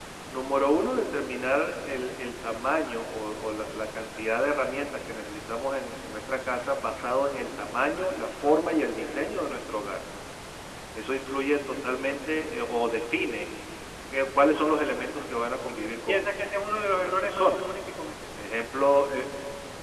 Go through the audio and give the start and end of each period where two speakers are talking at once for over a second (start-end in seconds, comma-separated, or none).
15.7-17.7